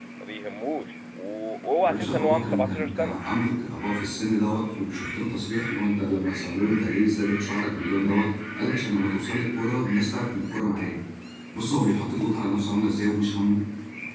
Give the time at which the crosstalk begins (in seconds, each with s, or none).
1.8 s